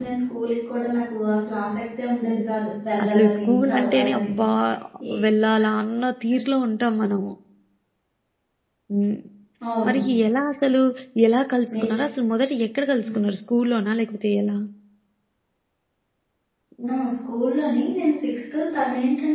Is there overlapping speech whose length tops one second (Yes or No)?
Yes